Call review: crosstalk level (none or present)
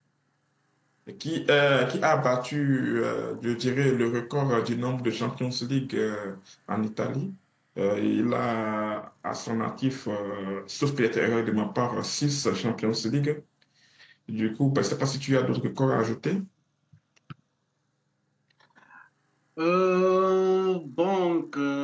none